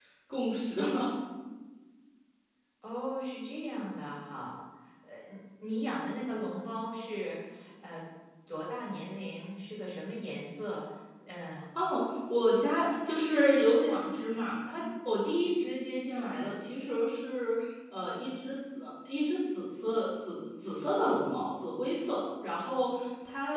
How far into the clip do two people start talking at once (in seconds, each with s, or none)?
none